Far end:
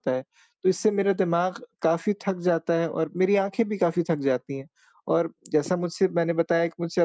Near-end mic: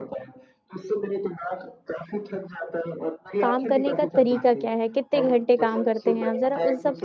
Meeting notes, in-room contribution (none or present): present